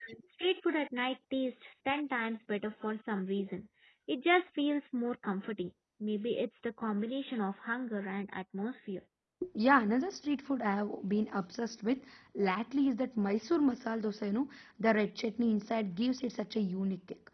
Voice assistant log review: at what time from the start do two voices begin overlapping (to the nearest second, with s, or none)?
none